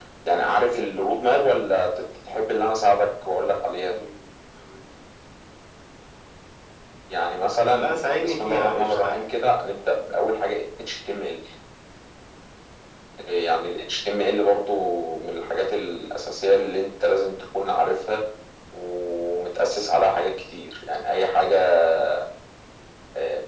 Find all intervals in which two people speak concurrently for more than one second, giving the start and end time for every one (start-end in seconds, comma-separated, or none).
7.7-9.3